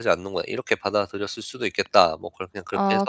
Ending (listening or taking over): taking over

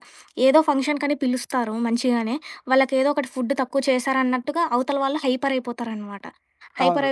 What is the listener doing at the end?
listening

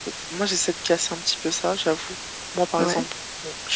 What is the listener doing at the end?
listening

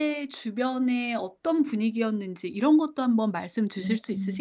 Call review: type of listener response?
taking over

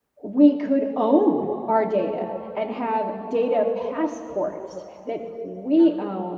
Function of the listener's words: listening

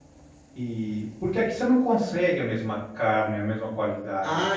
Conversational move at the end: taking over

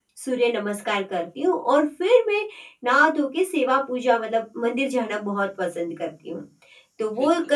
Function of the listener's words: listening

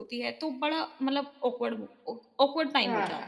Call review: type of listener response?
listening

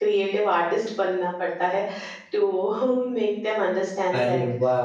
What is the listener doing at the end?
taking over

